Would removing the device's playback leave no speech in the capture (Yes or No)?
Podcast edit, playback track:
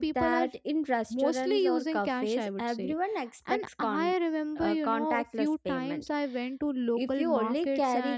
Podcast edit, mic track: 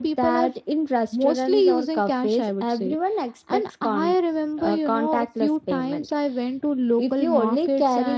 Yes